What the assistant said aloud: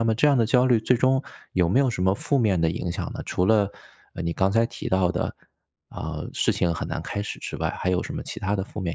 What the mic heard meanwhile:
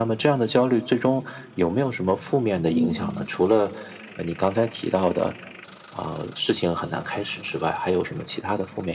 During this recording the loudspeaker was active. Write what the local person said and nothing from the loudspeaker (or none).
嗯，